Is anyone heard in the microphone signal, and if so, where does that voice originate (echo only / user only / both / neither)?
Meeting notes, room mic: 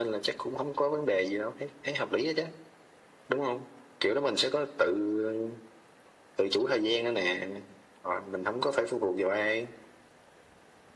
echo only